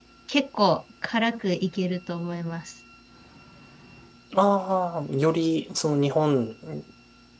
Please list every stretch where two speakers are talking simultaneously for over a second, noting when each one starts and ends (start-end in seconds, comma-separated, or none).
none